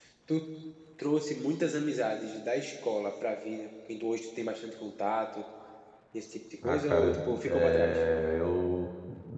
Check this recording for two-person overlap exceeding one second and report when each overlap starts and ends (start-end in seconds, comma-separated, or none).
6.6-8.0